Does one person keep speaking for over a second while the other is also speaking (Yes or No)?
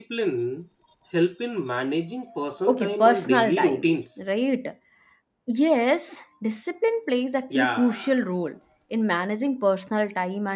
Yes